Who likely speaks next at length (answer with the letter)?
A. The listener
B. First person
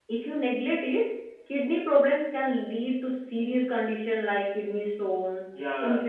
A